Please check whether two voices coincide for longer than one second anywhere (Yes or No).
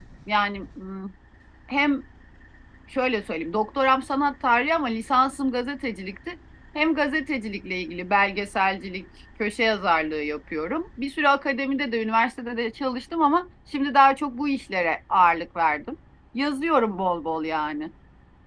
No